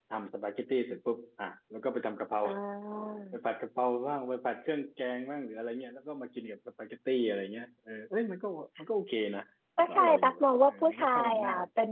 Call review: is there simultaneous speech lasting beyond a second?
Yes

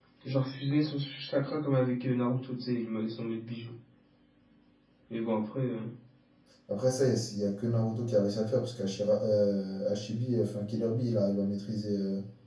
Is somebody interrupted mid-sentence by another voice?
No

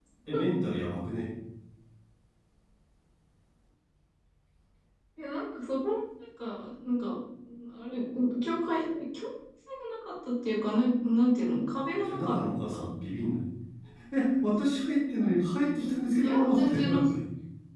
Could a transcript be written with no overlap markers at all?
No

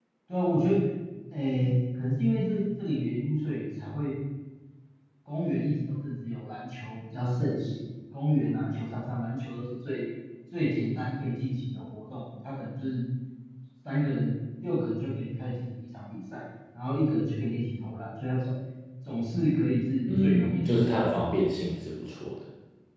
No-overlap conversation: No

